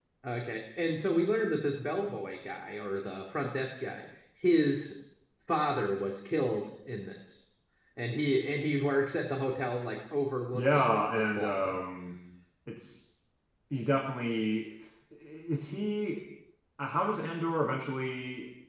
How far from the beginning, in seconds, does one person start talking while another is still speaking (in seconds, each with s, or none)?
10.5 s